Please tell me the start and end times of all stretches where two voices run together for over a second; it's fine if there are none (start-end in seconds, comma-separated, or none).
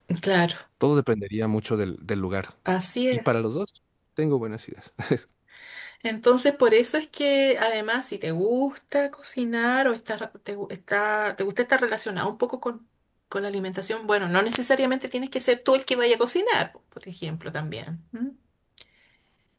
none